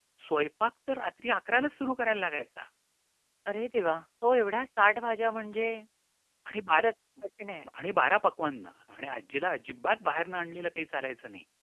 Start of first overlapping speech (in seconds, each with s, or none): none